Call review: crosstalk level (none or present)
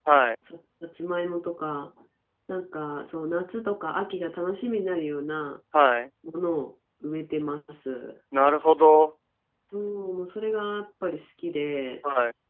none